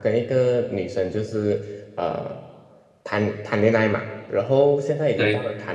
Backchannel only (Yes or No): Yes